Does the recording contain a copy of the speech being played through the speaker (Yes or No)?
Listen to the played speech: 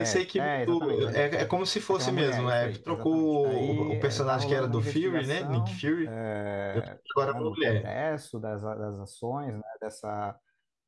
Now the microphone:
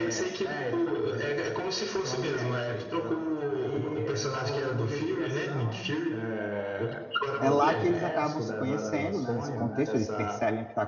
Yes